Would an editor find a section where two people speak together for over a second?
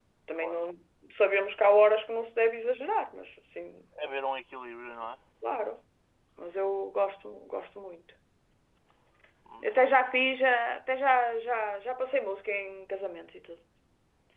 No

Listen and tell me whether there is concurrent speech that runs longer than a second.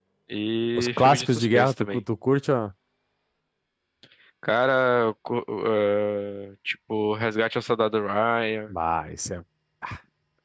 Yes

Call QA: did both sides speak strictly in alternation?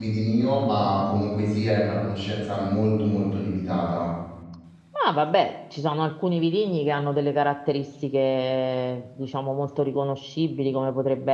Yes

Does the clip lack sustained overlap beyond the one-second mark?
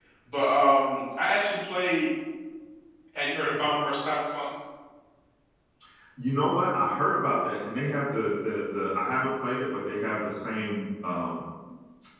Yes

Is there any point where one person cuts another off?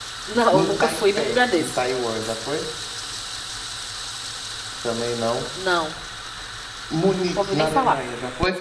Yes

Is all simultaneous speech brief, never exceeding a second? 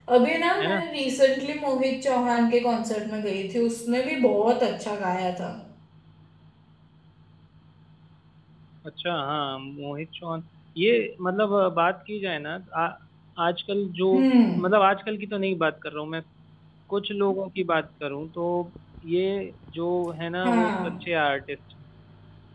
Yes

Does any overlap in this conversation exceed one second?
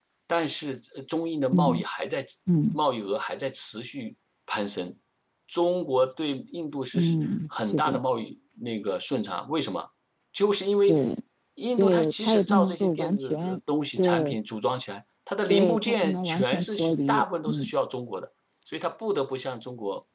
Yes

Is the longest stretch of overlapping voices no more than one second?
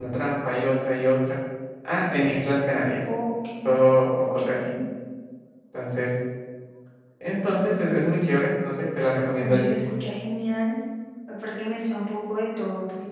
Yes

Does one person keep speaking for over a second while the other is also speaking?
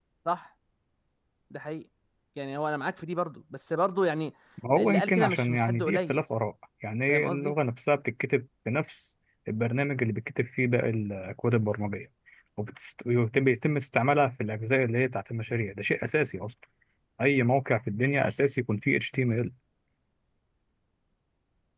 Yes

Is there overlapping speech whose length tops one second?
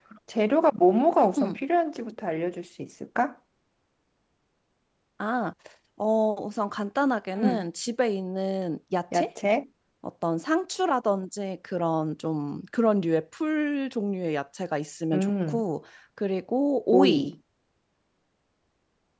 No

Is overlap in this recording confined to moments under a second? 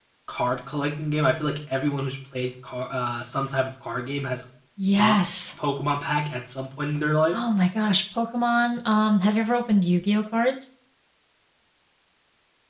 Yes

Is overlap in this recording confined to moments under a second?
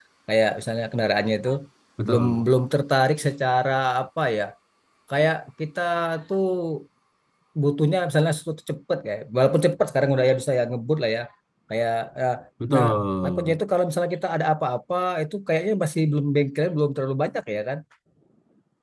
Yes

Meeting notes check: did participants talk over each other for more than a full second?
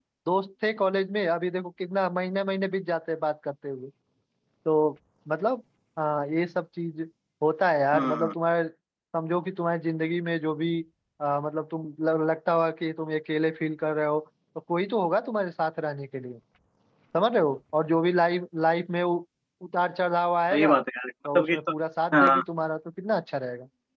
No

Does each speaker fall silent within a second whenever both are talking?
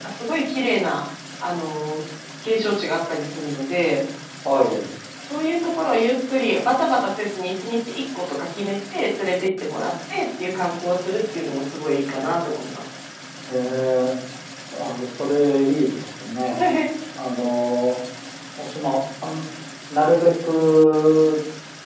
Yes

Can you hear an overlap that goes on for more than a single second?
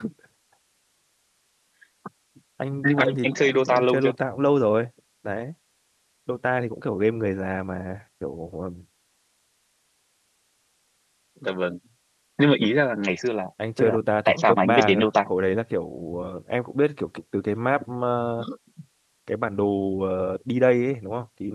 Yes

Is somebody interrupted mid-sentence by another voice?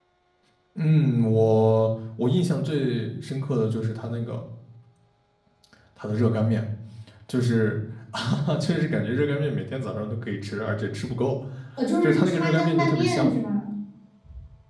Yes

